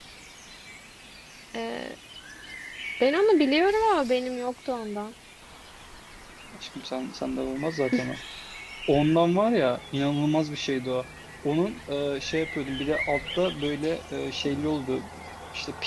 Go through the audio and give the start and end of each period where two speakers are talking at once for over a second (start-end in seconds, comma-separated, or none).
none